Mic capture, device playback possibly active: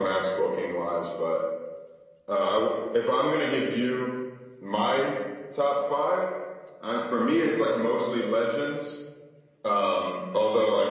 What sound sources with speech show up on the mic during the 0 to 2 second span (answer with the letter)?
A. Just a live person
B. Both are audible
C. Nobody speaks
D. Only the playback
D